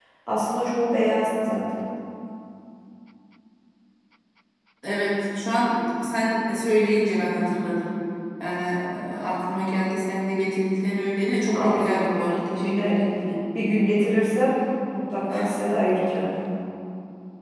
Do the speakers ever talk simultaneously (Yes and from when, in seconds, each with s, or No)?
Yes, from 11.5 s